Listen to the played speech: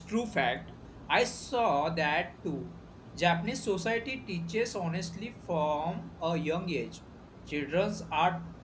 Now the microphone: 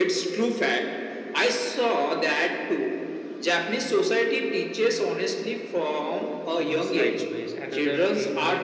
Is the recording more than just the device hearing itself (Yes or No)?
Yes